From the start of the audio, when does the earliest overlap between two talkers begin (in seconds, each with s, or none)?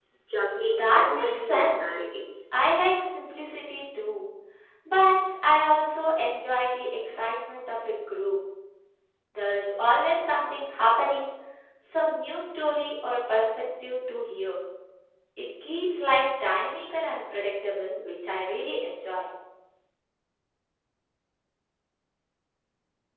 0.8 s